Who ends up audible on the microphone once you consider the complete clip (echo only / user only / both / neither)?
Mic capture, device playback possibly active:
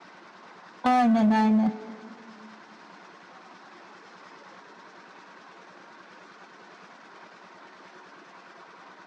user only